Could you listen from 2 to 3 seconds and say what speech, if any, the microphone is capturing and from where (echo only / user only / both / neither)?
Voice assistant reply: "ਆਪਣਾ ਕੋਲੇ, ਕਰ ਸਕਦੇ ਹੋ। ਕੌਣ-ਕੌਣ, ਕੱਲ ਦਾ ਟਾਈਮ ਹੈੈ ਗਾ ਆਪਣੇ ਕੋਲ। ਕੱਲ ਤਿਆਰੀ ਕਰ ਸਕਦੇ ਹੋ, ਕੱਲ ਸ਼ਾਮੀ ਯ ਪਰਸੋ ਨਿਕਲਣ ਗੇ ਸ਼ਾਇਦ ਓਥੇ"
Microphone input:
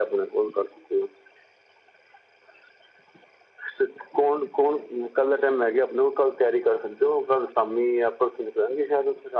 neither